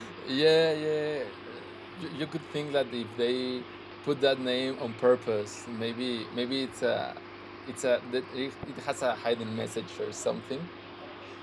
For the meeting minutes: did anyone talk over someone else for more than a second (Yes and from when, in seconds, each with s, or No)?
No